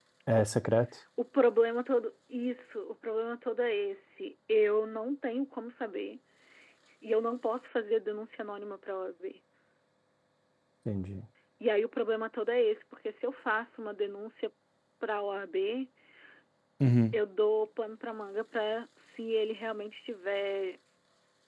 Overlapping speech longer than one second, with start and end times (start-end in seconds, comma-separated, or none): none